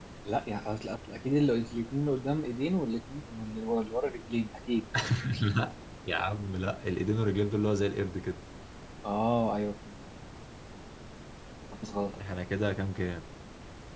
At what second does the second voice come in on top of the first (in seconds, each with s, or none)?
none